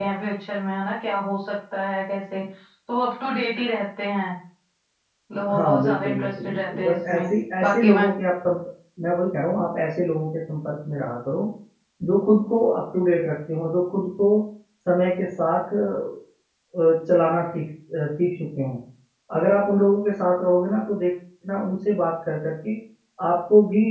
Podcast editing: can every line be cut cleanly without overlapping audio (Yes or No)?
No